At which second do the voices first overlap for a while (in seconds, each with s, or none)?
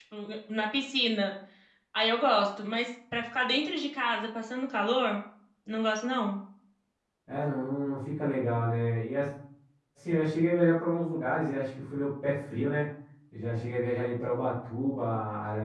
none